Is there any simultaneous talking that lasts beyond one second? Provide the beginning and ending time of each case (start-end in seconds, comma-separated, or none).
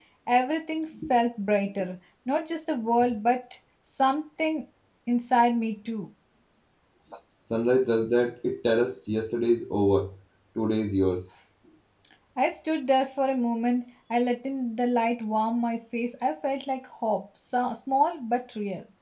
none